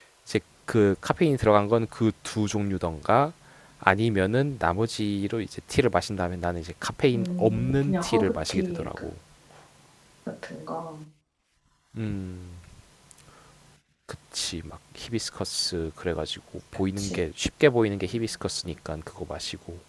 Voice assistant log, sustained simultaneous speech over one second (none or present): present